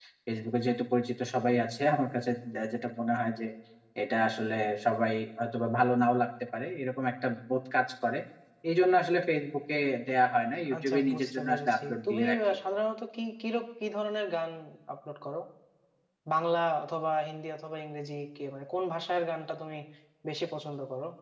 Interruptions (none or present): present